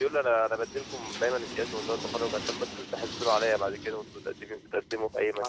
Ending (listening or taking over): taking over